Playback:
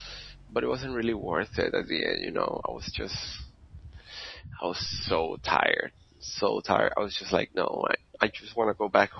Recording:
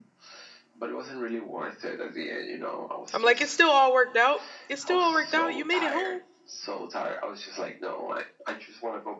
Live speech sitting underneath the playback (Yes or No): No